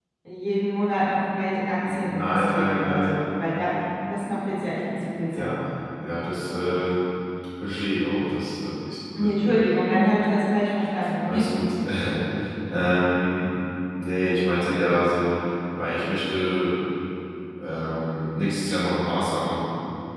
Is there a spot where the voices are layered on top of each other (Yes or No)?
Yes